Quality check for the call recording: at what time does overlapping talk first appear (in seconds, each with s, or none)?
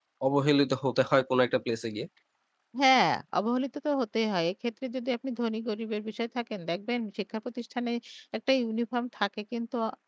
none